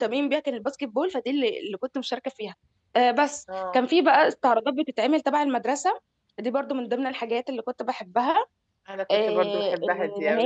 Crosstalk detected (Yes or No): Yes